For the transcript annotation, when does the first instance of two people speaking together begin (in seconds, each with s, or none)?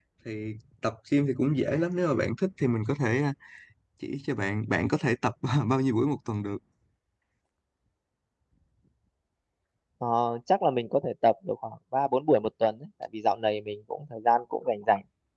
none